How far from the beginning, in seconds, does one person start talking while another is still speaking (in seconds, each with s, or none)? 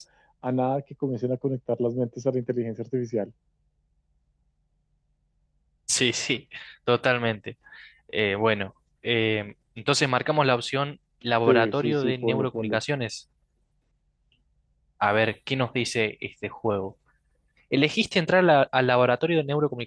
11.5 s